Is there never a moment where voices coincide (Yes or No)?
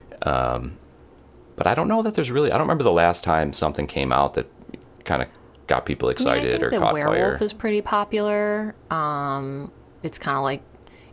No